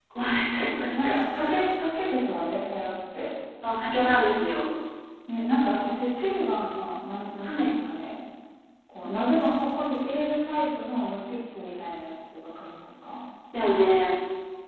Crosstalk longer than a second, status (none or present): none